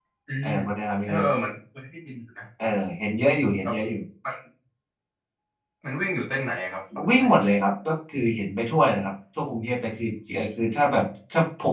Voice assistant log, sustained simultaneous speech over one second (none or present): none